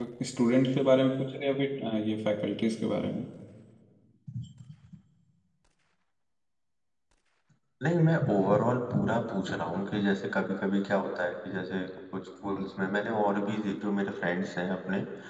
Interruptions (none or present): none